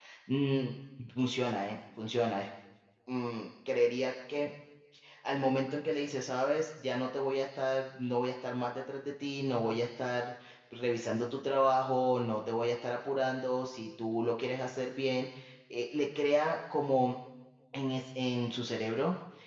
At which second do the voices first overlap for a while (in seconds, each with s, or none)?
none